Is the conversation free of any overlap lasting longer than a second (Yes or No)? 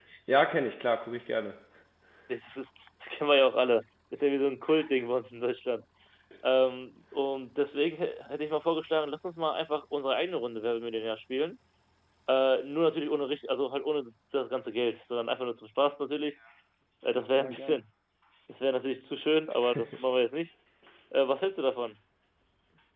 Yes